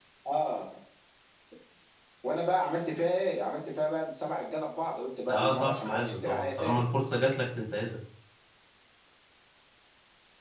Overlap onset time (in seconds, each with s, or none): 5.3 s